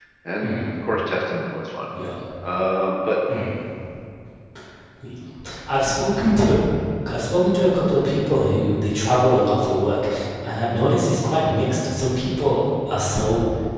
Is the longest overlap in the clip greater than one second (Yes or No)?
No